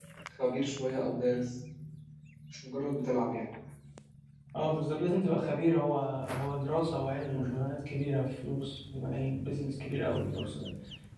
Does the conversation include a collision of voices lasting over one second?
No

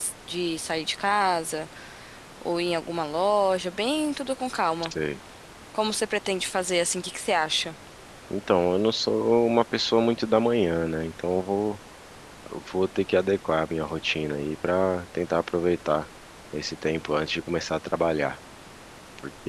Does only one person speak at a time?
Yes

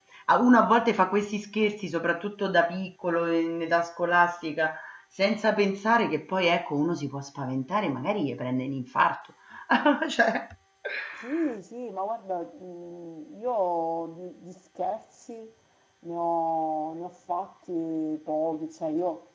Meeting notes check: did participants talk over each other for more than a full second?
No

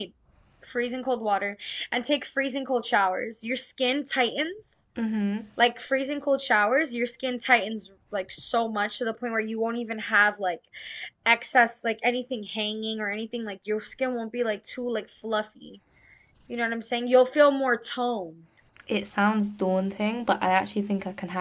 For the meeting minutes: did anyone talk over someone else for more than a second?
No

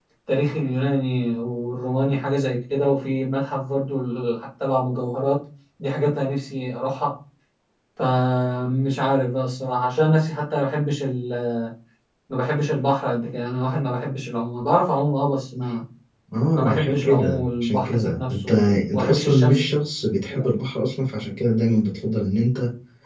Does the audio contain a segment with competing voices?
Yes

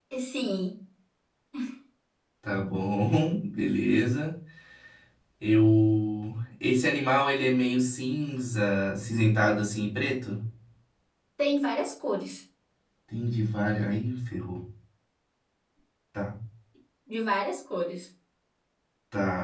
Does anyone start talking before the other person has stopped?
No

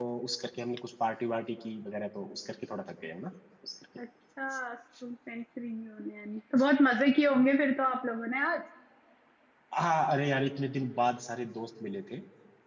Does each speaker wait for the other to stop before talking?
Yes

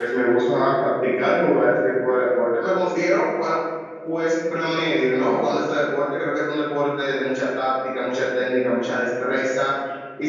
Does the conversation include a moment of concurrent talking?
No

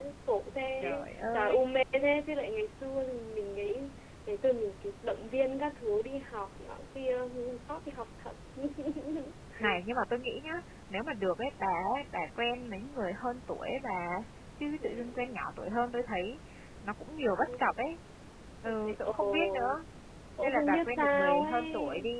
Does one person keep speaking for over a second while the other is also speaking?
Yes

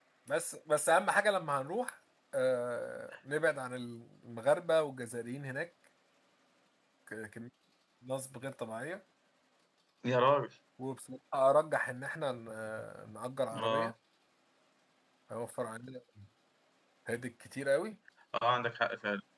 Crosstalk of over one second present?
No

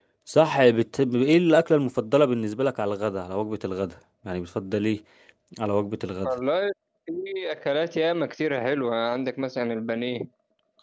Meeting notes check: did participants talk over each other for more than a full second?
No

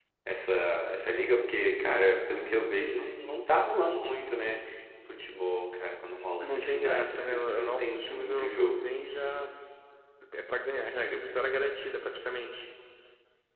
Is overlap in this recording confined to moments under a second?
No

